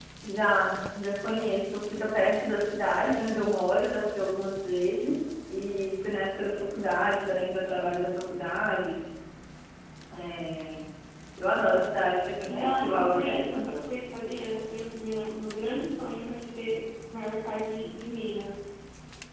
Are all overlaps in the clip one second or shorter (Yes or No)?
No